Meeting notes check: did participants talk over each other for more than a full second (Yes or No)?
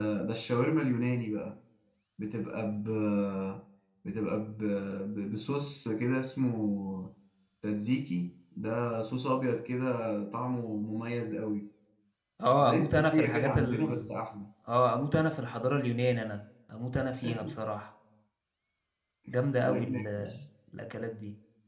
Yes